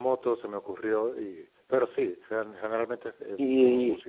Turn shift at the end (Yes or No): Yes